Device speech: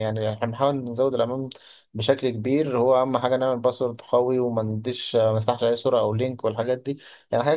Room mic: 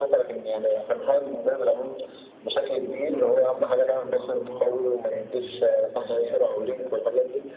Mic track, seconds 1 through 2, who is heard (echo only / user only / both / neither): echo only